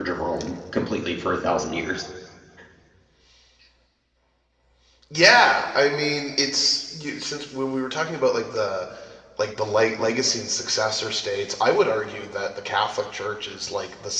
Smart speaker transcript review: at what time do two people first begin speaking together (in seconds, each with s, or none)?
none